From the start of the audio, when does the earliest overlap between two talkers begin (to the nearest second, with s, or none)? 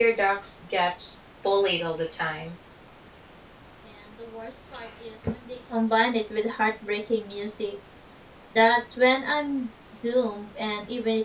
none